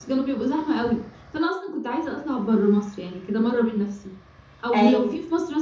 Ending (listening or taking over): listening